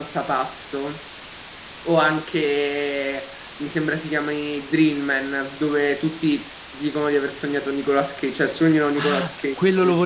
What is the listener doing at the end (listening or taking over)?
taking over